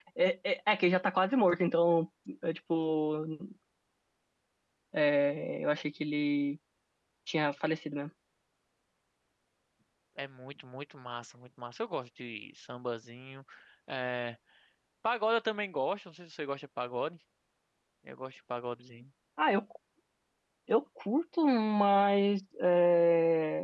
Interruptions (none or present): none